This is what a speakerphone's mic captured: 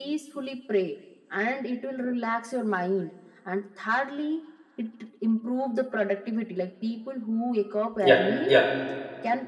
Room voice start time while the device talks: 8.0 s

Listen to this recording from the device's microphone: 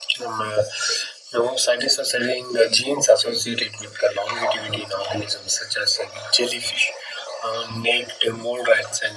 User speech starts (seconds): none

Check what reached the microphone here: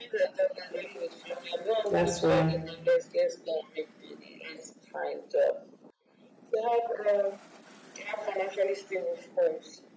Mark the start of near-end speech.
1.9 s

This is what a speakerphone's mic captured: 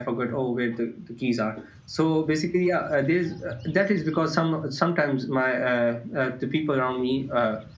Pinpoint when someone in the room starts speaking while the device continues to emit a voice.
none

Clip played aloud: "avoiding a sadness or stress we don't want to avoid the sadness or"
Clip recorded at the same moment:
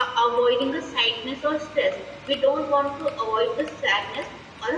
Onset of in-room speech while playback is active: none

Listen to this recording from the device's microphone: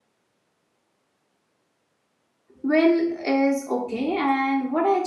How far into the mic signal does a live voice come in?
2.6 s

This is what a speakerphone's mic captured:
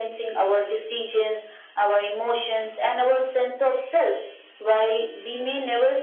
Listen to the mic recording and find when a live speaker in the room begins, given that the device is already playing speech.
none

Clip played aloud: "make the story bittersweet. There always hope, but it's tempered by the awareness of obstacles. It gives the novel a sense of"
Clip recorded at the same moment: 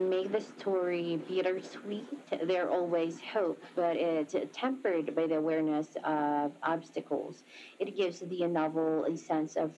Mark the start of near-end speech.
none

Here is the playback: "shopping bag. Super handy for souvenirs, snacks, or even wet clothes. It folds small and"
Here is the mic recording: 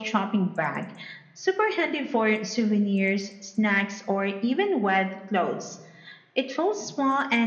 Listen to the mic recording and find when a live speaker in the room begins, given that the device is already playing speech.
none

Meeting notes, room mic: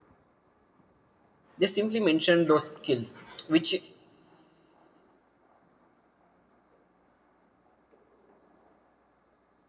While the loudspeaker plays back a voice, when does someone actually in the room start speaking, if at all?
1.6 s

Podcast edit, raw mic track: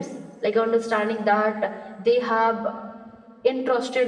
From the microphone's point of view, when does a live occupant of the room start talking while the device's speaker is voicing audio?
none

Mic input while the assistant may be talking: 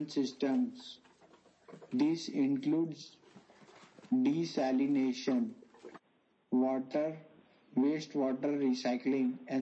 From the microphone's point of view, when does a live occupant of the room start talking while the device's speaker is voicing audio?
none

